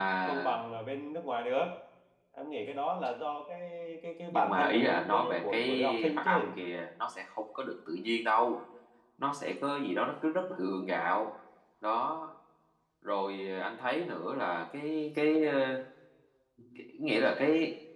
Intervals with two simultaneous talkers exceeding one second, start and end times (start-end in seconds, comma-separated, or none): 4.3-6.5